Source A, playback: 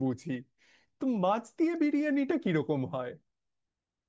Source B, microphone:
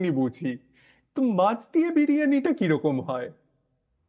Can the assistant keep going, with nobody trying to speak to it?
Yes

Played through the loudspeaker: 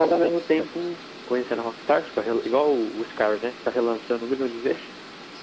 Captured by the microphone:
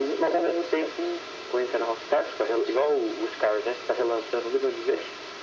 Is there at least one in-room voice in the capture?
No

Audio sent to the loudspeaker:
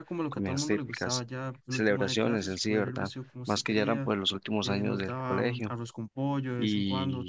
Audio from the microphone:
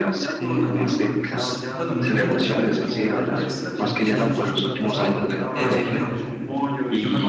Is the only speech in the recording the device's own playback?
No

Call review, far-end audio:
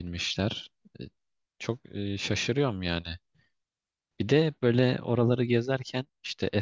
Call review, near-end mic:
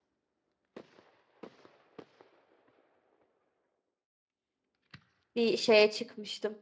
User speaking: Yes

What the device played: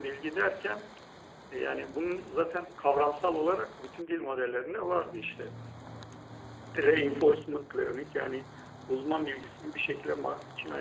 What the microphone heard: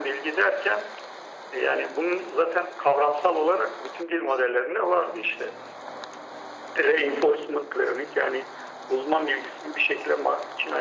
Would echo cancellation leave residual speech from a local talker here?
No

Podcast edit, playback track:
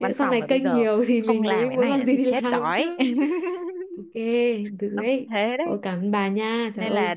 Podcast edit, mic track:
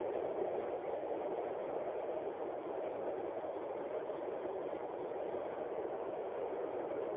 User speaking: No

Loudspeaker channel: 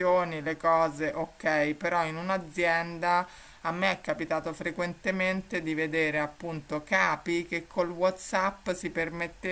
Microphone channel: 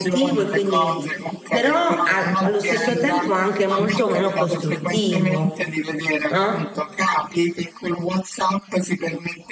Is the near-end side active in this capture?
Yes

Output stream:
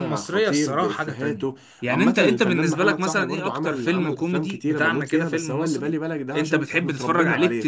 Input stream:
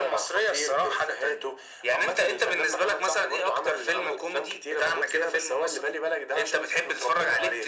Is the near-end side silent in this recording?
Yes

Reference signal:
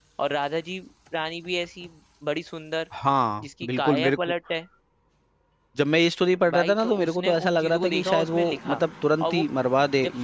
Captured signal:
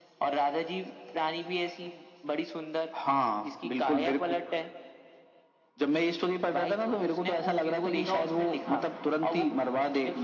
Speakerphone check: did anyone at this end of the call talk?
No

